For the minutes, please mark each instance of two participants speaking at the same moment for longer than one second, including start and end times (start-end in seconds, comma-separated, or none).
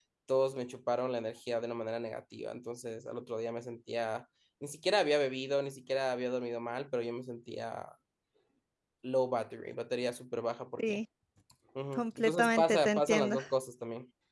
11.9-13.4